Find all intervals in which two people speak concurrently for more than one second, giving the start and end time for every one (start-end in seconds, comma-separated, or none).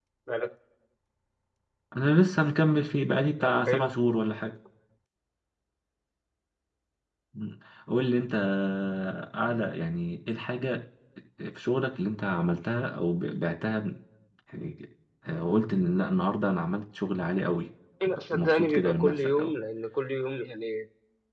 18.0-19.5